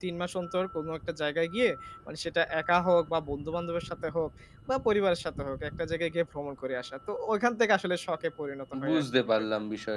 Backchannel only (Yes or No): No